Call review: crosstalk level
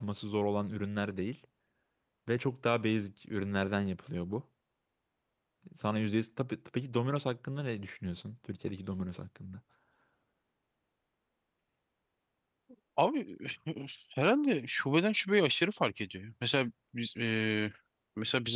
none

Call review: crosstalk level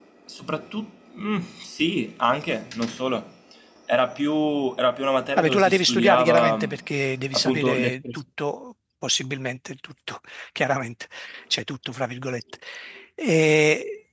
present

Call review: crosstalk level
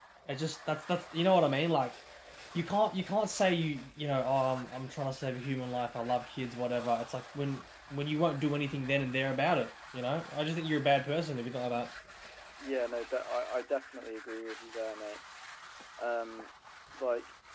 none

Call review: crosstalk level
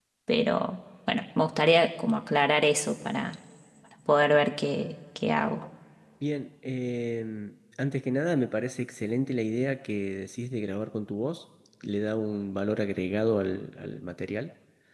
none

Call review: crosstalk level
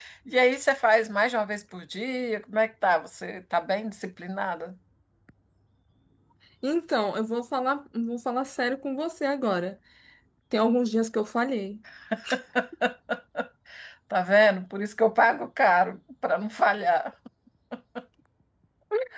none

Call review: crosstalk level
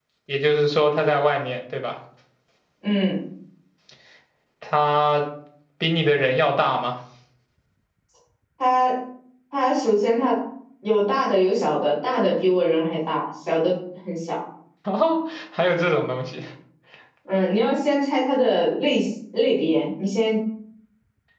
none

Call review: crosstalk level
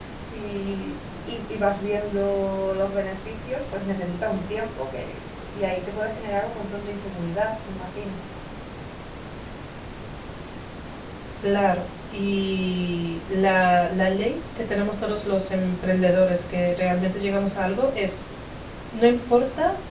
none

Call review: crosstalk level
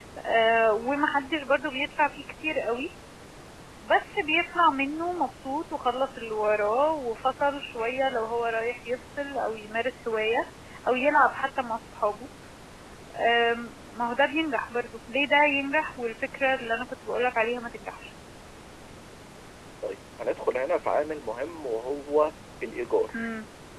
none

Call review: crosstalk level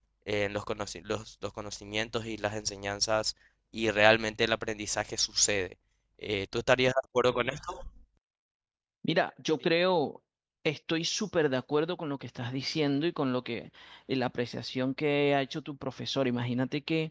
none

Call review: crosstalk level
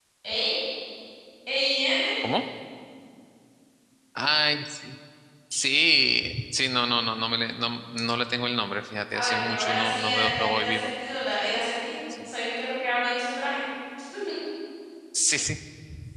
present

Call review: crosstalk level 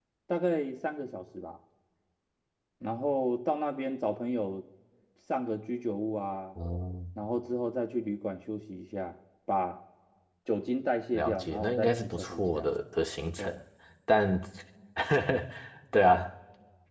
present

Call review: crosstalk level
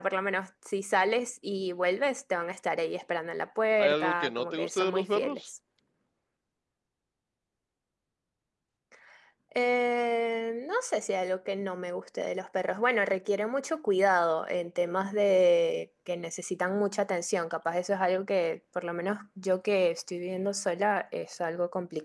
present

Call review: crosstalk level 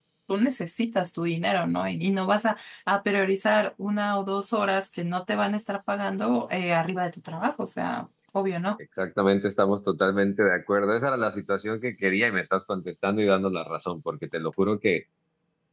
none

